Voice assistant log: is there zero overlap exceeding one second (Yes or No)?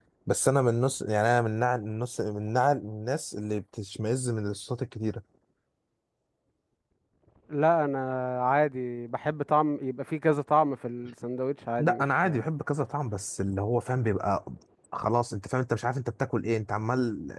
Yes